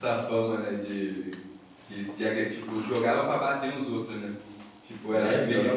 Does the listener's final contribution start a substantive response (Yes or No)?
Yes